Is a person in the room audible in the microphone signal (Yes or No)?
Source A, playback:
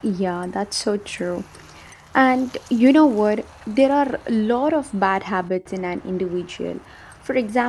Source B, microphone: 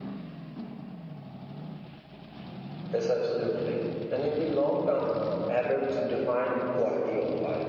Yes